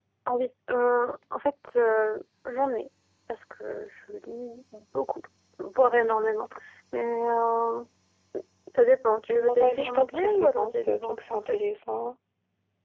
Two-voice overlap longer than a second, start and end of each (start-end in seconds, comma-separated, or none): 9.3-11.6